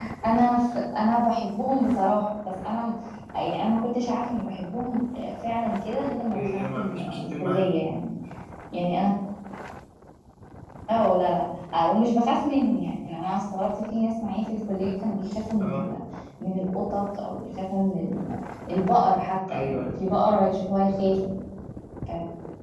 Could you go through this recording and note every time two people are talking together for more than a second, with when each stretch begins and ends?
6.3-7.9

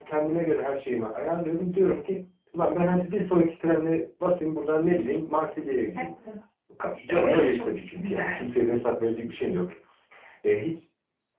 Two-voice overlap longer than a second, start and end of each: 7.0-8.4

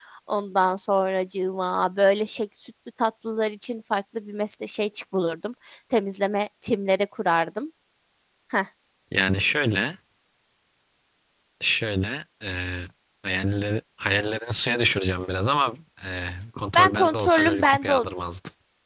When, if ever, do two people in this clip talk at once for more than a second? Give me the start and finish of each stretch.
16.7-18.1

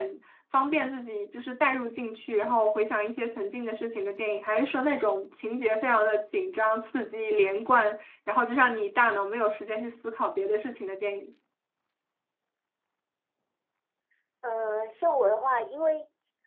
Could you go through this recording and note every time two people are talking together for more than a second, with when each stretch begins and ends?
none

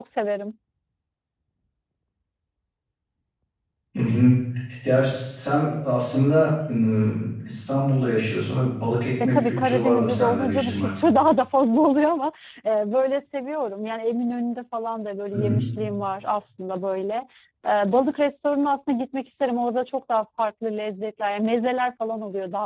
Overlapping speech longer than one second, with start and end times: 9.2-10.9

